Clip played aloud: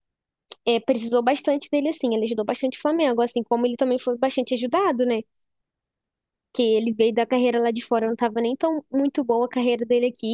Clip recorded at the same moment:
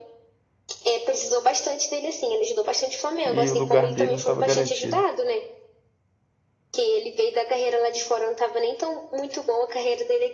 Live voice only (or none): e o lugar dele não estava garantido.